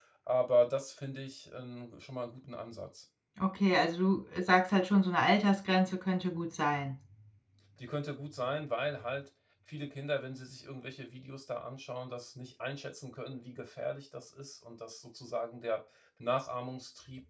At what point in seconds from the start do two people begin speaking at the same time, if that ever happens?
none

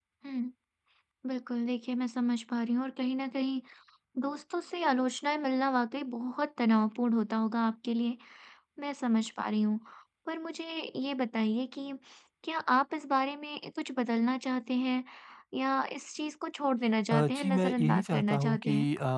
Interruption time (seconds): 17.1 s

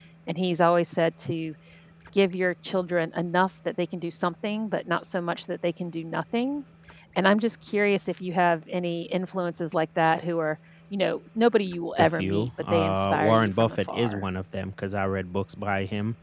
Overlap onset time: 12.0 s

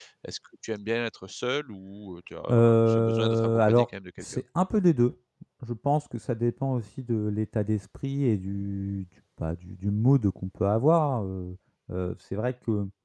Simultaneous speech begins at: 2.5 s

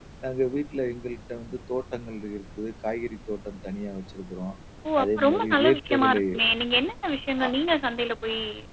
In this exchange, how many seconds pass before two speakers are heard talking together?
5.0 s

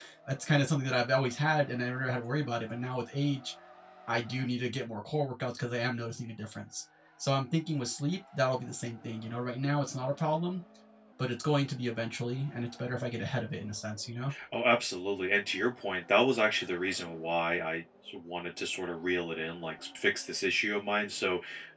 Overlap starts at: none

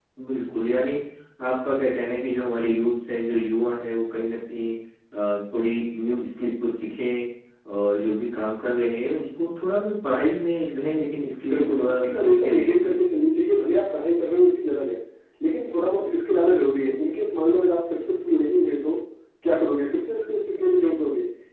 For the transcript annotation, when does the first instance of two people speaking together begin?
11.5 s

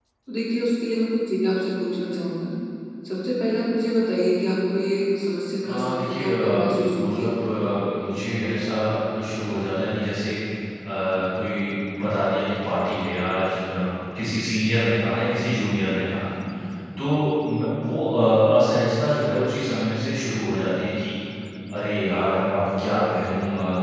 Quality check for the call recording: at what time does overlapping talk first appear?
5.6 s

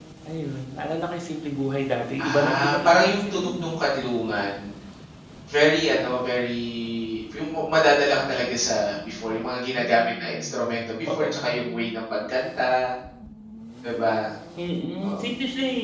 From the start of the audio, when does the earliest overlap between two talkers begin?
2.2 s

